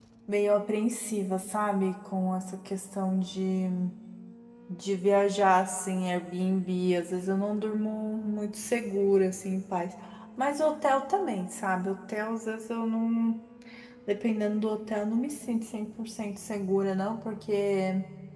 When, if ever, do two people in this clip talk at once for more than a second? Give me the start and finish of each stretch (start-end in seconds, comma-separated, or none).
none